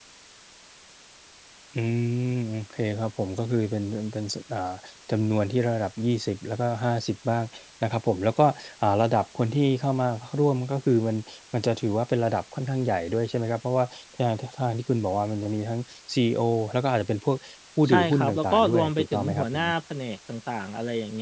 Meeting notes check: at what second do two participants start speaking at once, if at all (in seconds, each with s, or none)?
17.9 s